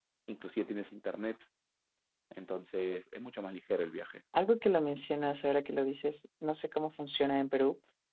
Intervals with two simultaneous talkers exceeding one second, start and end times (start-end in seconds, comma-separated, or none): none